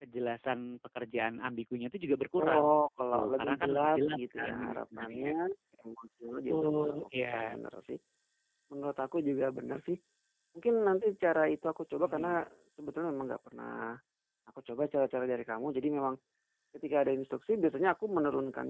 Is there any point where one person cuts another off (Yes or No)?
Yes